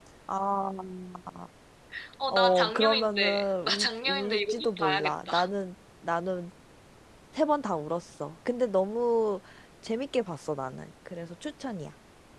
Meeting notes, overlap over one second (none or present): present